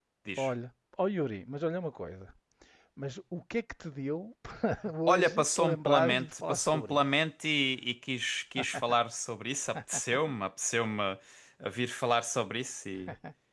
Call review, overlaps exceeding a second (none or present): present